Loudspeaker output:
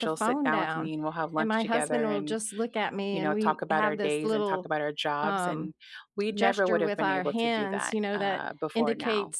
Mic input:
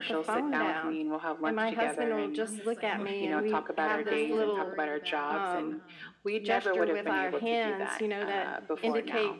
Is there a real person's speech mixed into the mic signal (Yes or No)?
Yes